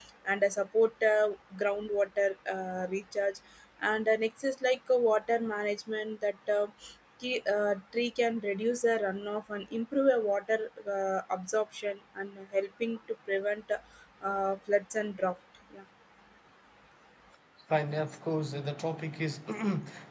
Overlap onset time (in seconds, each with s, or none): none